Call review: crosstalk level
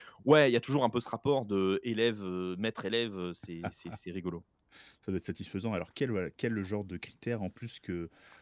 none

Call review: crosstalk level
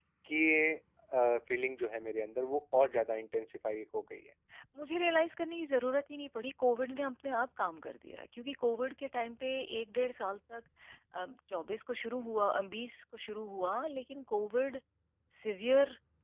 none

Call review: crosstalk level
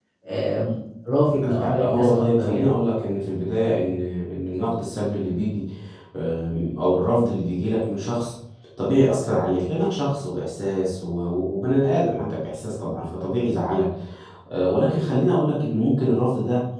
present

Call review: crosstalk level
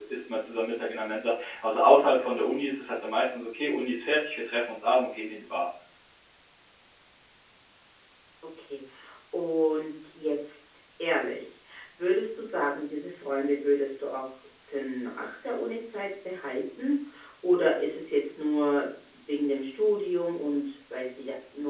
none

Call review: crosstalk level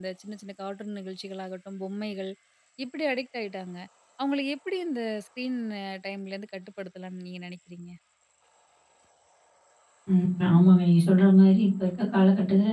none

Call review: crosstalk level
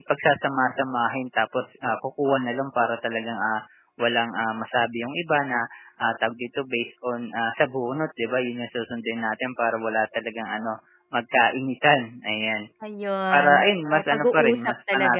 present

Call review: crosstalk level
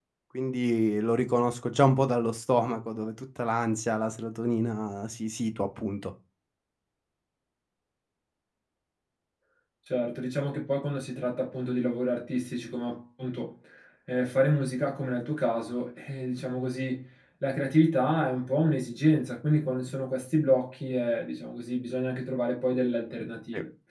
none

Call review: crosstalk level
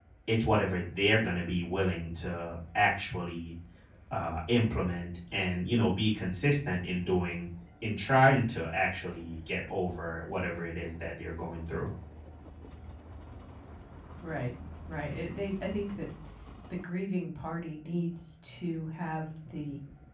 none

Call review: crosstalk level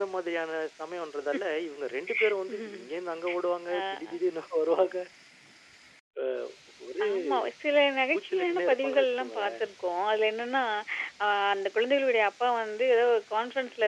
present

